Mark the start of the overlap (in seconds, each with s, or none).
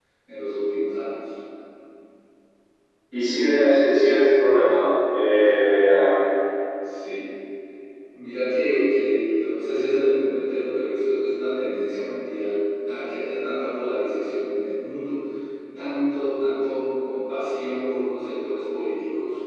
none